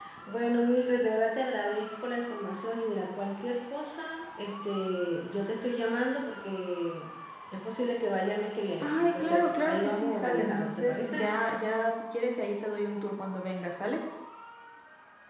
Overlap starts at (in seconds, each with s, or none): 8.8 s